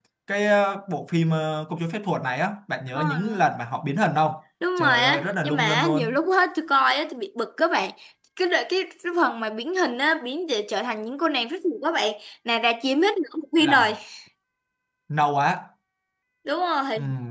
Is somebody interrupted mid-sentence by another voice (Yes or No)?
Yes